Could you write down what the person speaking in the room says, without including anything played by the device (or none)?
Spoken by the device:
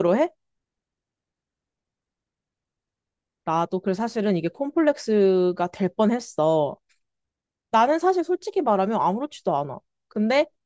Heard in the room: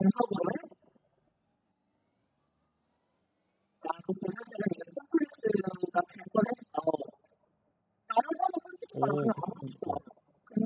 오, 그렇군. 어,